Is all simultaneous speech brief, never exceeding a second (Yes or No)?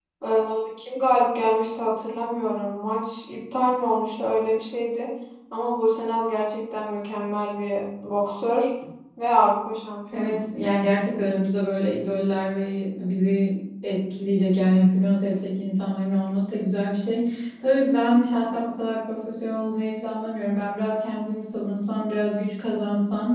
Yes